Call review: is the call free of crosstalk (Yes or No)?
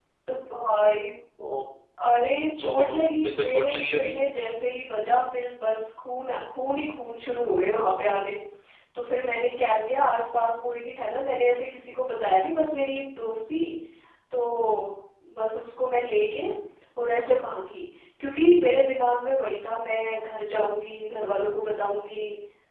No